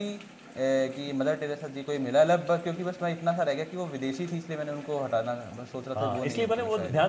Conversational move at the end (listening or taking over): taking over